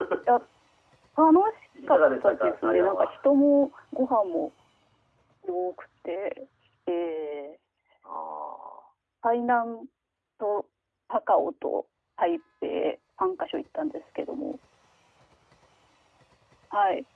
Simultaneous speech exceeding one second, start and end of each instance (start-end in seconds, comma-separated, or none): 1.9-3.1